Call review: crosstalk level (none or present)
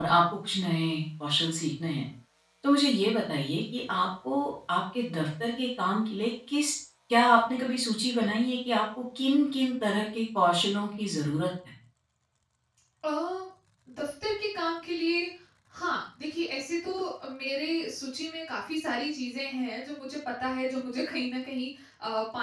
none